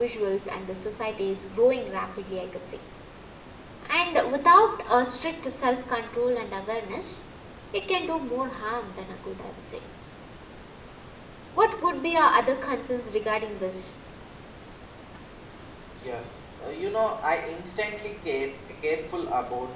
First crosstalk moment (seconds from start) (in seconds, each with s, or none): none